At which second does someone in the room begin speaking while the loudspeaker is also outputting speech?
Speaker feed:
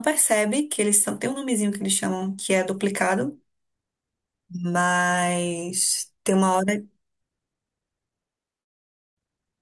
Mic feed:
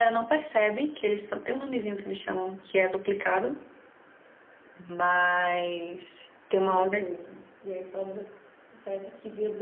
6.7 s

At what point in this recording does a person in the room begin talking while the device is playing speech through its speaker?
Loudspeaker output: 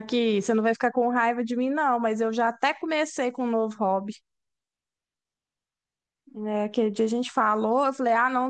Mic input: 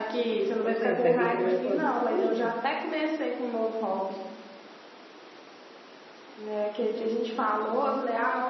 0.6 s

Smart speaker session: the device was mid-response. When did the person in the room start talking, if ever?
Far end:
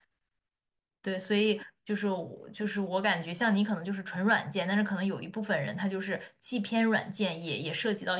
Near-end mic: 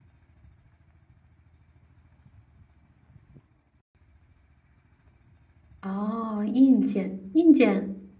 5.8 s

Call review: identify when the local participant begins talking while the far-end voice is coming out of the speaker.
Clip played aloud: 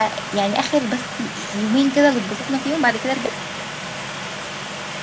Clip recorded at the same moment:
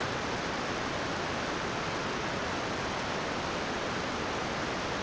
none

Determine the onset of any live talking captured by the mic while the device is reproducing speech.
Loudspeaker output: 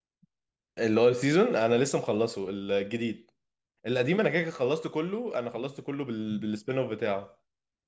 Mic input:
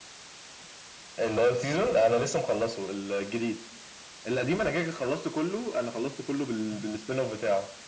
none

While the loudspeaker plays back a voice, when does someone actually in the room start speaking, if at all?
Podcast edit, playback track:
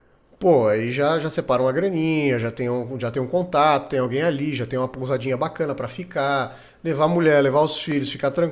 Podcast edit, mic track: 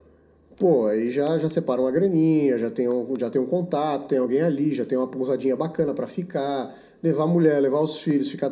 none

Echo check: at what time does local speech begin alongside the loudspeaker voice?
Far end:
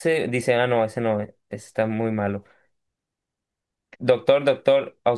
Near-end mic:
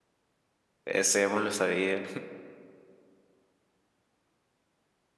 0.8 s

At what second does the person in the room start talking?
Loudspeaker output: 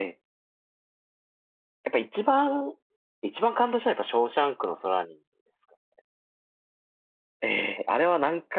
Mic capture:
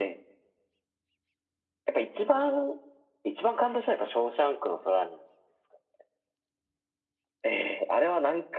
none

